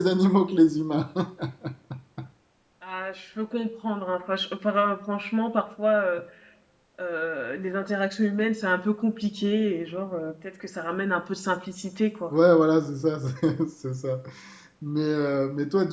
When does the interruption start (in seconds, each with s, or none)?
none